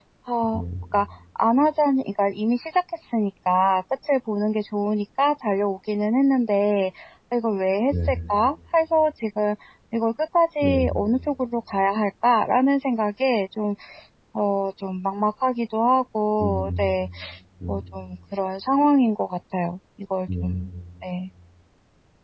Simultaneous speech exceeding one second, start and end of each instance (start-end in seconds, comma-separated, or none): none